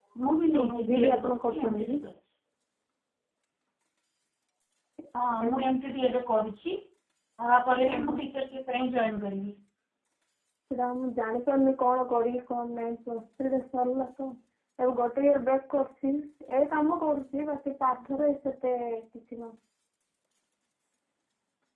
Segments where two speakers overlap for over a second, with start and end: 0.6-2.0

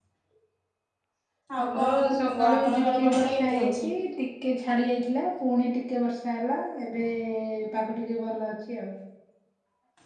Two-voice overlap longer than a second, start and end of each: 1.6-3.9

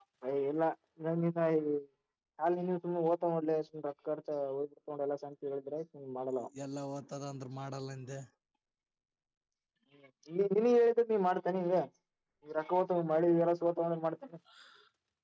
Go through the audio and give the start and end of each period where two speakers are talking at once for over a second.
none

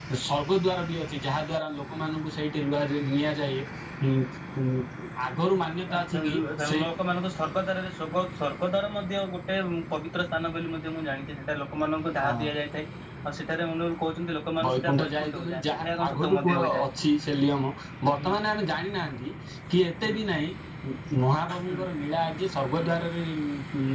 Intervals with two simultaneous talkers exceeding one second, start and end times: 14.7-16.8

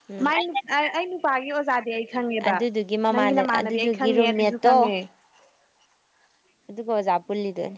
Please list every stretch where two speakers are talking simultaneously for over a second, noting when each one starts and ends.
3.1-4.8

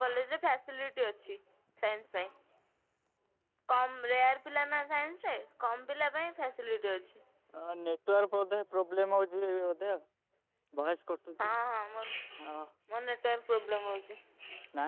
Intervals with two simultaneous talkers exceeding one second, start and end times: none

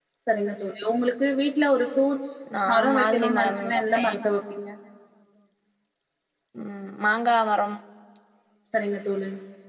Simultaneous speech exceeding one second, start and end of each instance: 2.7-4.2

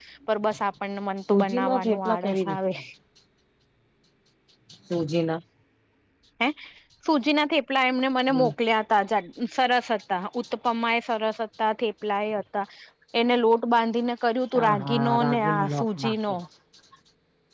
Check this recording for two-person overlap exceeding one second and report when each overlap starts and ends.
1.3-2.6, 14.6-16.3

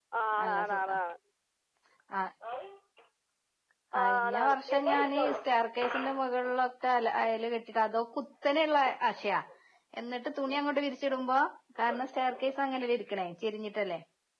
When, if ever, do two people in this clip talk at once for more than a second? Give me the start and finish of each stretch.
4.0-5.4

